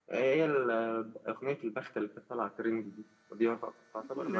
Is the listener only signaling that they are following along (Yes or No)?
No